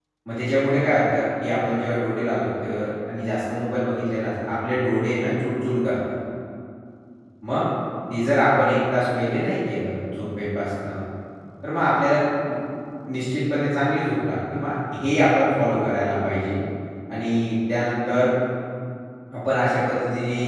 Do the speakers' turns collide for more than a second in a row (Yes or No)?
No